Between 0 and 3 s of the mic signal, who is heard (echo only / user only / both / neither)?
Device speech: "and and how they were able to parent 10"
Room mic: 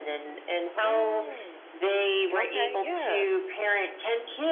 both